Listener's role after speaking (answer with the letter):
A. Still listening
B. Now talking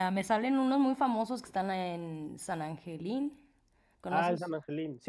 B